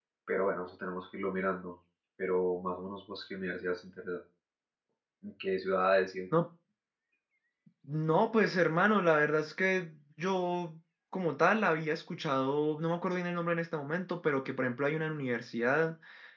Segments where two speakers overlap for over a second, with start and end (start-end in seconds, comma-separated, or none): none